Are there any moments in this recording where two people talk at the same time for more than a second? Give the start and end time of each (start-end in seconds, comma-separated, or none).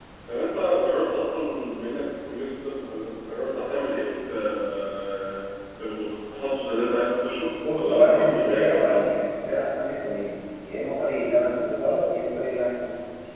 7.7-9.0